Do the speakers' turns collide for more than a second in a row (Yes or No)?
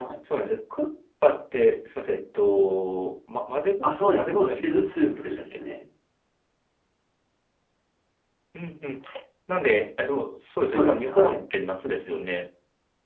Yes